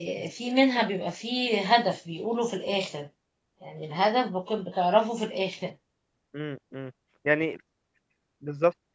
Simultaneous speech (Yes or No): No